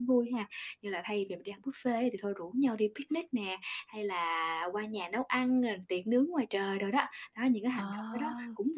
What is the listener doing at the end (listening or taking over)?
listening